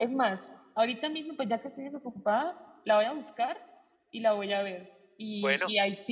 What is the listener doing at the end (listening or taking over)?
listening